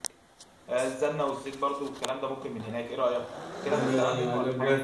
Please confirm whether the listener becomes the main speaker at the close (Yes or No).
Yes